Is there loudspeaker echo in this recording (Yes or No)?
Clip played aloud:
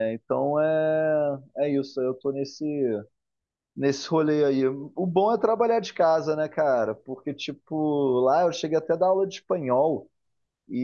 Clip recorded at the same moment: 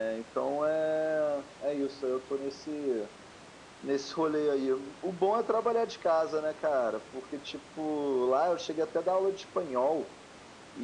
Yes